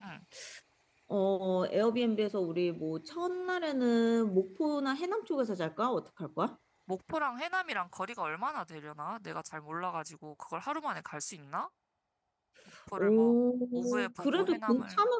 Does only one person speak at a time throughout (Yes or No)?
No